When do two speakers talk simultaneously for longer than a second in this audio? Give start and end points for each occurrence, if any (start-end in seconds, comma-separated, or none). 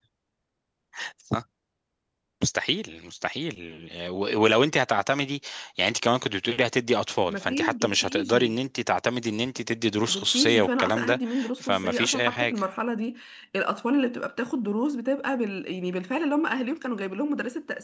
7.3-8.5, 10.1-12.6